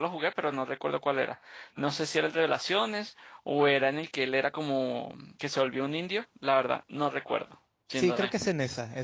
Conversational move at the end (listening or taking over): taking over